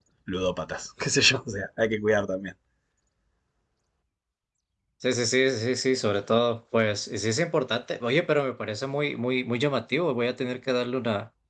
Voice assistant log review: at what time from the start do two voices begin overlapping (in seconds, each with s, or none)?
none